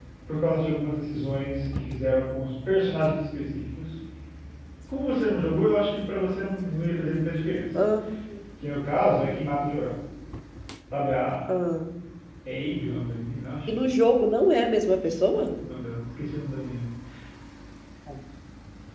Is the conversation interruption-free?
Yes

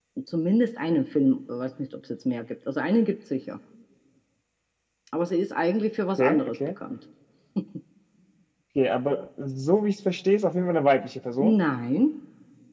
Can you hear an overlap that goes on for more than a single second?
No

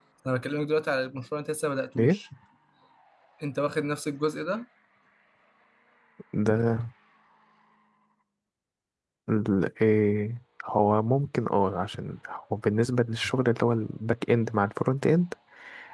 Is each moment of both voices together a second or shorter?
Yes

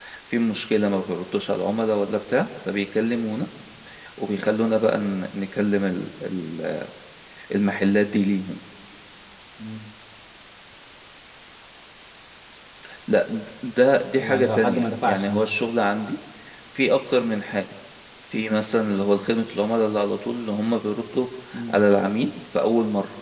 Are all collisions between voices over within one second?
No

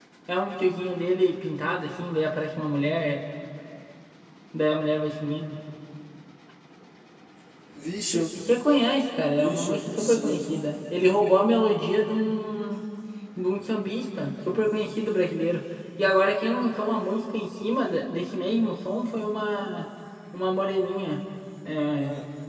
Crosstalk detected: Yes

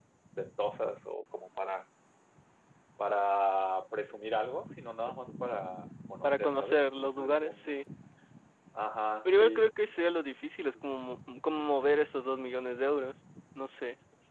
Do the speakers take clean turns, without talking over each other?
No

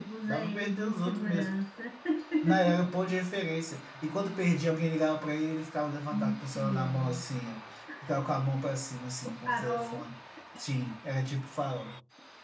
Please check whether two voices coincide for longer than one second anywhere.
Yes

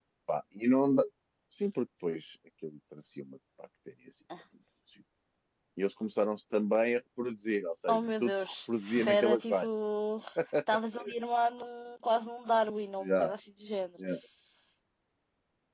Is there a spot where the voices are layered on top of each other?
Yes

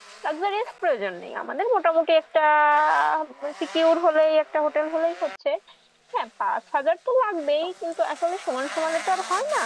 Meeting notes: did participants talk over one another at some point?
No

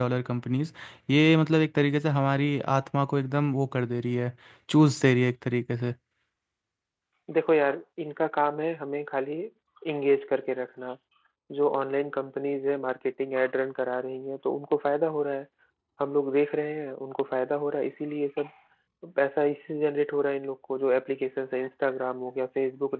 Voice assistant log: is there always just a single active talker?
Yes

